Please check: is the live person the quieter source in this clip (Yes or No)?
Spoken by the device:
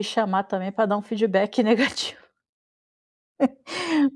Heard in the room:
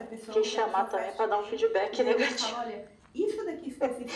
Yes